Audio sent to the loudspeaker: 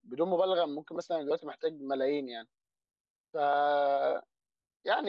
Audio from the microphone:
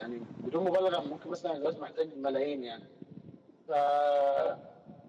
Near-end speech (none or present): none